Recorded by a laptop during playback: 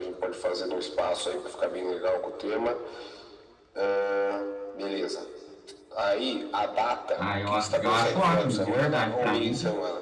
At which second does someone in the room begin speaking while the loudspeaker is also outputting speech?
7.2 s

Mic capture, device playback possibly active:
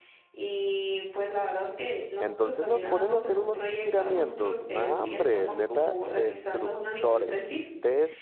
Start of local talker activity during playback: 2.2 s

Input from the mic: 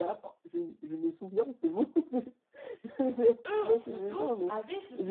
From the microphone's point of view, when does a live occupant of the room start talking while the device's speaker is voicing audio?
3.5 s

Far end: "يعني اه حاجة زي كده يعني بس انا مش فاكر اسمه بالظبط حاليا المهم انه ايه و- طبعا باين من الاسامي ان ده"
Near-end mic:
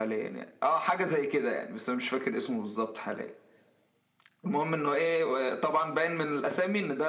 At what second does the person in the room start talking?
none

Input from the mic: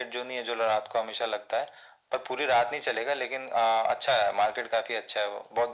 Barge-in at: none

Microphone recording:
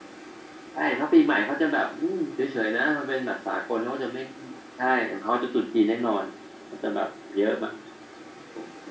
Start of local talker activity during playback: none

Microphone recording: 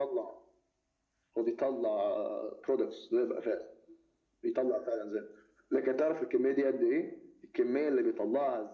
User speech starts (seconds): none

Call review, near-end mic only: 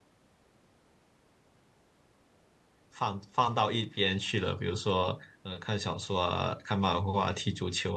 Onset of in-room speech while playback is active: 2.9 s

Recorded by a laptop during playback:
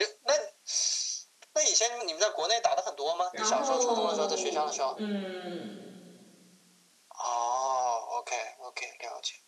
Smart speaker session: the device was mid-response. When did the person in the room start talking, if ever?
3.3 s

